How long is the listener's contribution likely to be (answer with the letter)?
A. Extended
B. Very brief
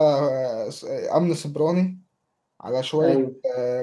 B